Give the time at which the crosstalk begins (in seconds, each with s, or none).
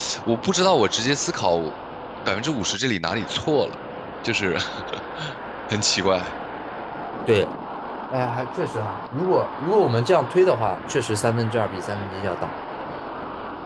none